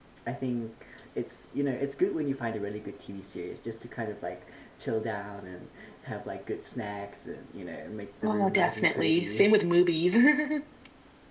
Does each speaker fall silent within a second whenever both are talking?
No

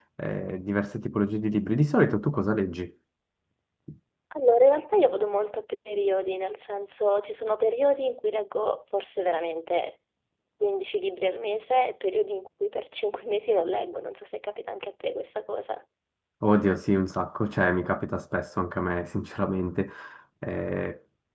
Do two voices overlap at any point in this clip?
No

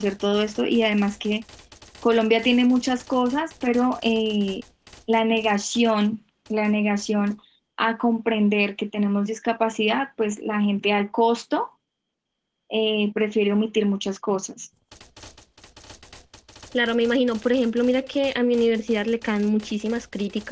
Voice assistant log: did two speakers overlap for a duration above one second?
No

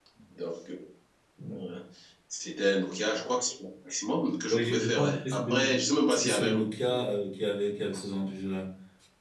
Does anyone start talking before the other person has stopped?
Yes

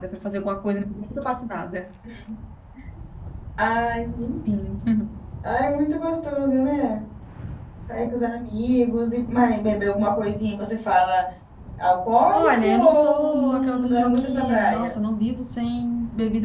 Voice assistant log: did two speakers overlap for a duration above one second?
Yes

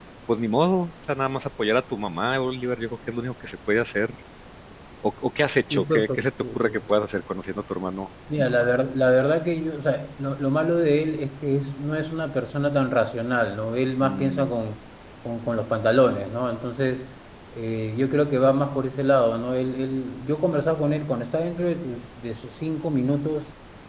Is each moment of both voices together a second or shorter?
Yes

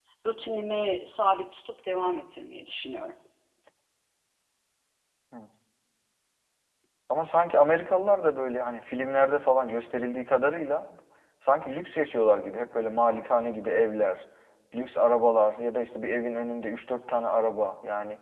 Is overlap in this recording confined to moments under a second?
Yes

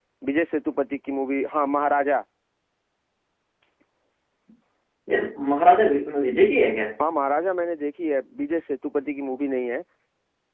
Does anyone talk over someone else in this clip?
No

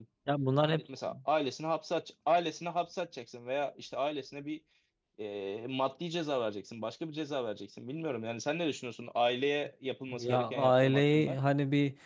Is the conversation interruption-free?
No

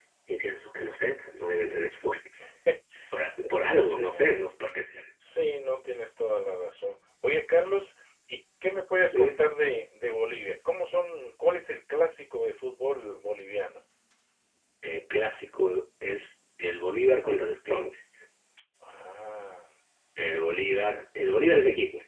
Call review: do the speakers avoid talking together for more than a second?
Yes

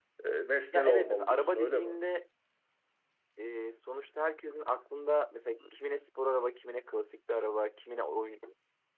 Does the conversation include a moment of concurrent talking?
Yes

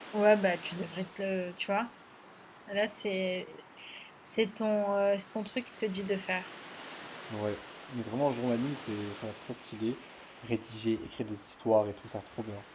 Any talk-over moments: No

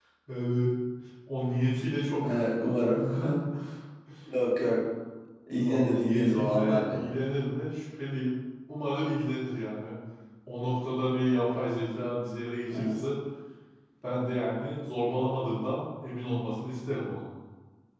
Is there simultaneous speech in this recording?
Yes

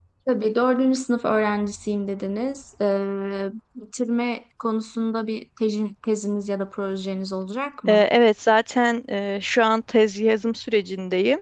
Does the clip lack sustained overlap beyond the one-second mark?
Yes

